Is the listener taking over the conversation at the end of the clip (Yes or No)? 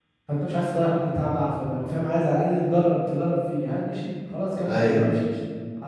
No